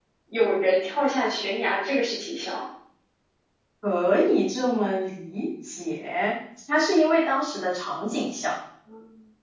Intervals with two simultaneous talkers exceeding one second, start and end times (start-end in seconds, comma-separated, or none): none